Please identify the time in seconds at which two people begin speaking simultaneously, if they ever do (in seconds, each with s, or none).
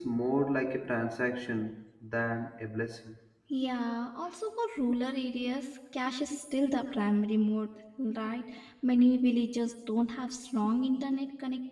none